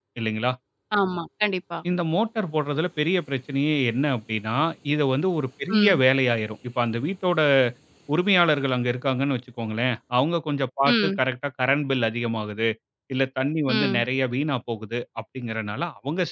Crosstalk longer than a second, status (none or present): none